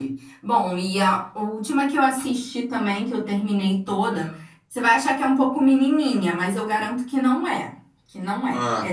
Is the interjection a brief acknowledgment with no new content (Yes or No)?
Yes